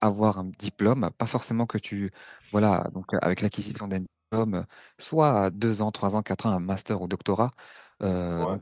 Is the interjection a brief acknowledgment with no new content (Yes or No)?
Yes